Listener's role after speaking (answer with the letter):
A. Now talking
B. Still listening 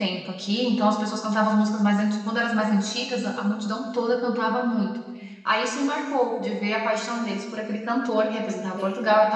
B